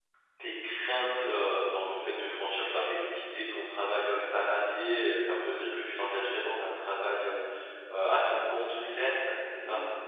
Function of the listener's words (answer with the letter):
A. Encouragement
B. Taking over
B